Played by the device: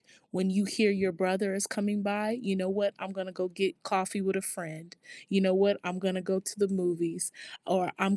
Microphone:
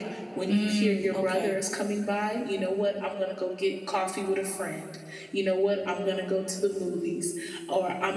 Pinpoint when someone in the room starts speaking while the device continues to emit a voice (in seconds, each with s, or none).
0.5 s